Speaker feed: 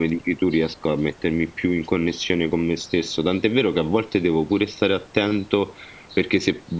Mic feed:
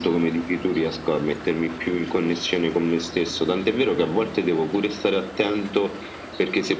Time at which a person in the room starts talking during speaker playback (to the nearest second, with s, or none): none